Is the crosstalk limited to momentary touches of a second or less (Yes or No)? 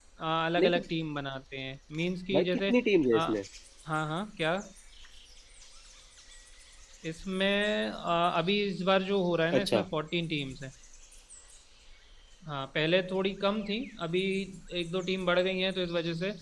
Yes